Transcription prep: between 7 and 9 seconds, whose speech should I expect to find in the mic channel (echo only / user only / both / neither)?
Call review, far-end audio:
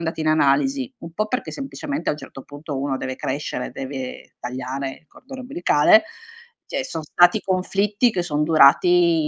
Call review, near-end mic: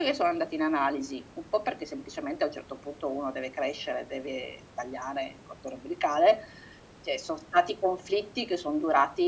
echo only